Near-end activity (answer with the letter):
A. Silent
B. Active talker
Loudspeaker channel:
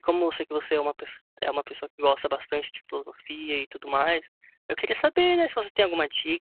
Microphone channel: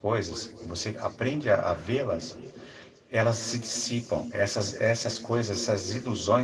B